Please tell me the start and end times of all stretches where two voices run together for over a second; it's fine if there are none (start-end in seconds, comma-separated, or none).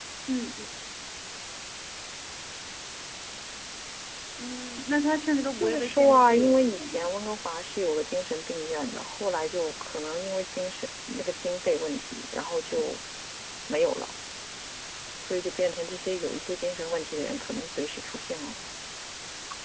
5.5-7.1